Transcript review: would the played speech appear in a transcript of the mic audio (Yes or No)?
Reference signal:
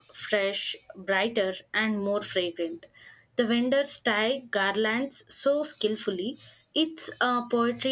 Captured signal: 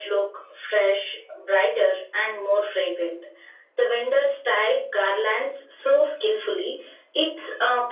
Yes